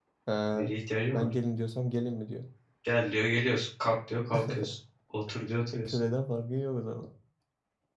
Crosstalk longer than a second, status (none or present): none